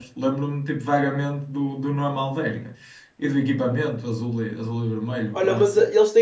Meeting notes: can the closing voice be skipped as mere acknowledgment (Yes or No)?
No